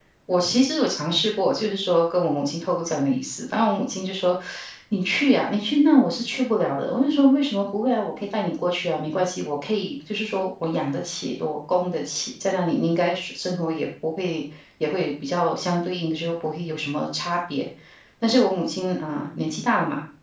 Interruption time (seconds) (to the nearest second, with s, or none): none